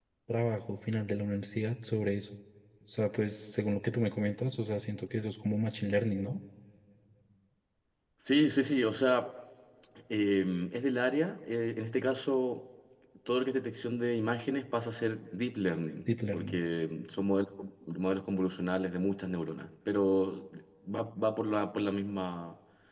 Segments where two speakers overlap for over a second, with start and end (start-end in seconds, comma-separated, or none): none